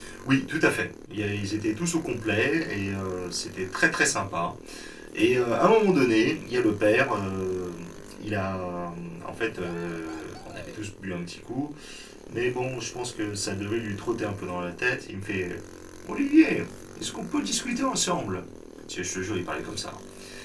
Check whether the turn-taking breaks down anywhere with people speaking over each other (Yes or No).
No